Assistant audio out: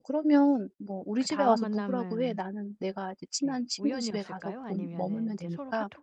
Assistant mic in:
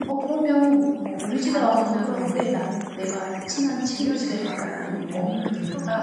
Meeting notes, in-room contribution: none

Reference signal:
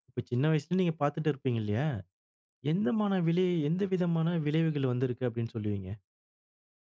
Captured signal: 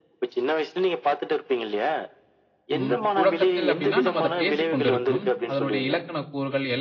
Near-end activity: present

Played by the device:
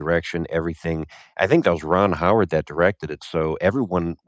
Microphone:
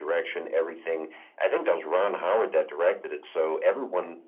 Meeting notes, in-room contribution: none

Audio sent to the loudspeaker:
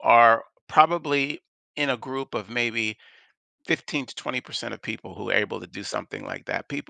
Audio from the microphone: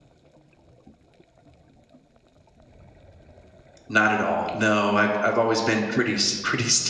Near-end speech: present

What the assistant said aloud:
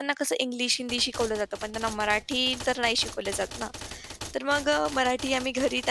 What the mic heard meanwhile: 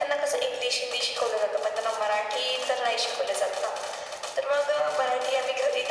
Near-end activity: none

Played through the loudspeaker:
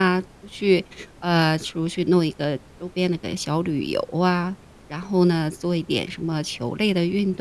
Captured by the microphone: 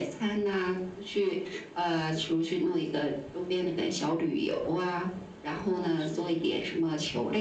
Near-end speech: present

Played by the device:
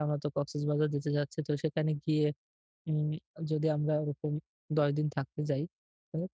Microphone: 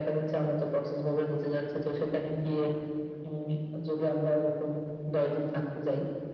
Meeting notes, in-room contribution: none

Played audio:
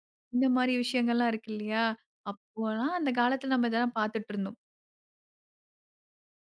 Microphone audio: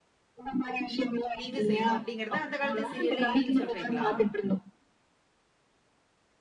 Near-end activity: present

